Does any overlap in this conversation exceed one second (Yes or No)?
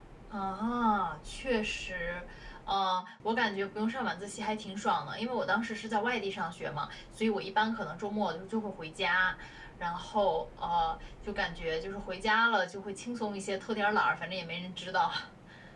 No